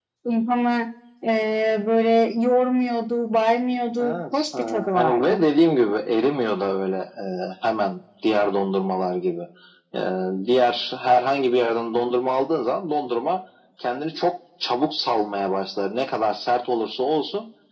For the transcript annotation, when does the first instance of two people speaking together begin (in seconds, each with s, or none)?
4.0 s